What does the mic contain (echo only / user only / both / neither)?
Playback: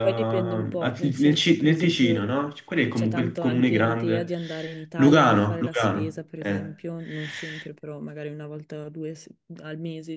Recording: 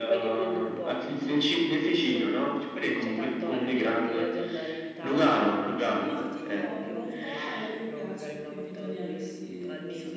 both